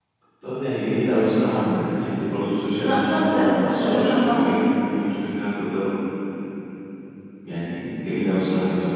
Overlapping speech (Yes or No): Yes